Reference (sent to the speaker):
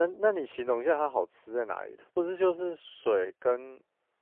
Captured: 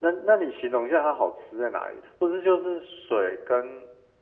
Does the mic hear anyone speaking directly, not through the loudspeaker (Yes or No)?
No